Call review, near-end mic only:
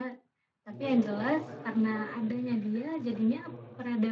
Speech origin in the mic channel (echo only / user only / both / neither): both